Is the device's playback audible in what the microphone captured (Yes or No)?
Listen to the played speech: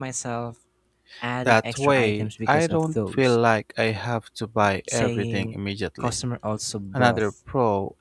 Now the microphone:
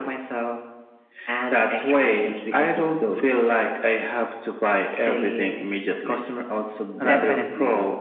Yes